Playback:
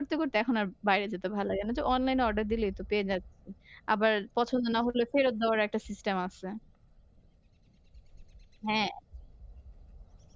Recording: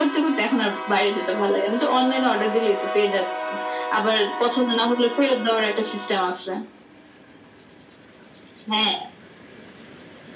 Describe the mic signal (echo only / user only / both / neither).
echo only